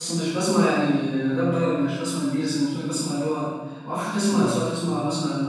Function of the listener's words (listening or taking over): listening